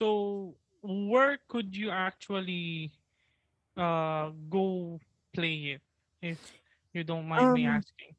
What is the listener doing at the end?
taking over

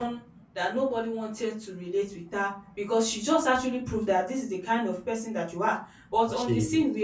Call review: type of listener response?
listening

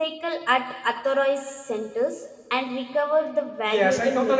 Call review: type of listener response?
taking over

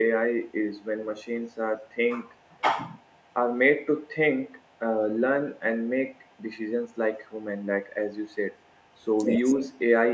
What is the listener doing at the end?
listening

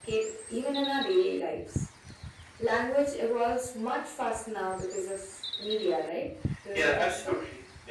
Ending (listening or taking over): taking over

